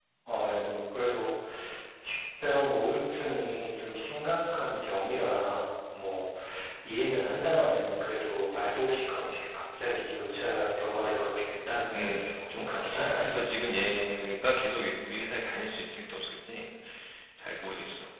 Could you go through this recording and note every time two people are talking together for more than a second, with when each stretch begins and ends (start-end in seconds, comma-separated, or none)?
11.9-13.3